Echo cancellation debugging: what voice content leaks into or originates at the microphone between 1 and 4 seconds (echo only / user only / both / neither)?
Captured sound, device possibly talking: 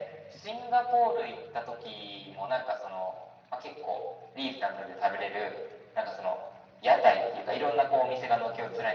echo only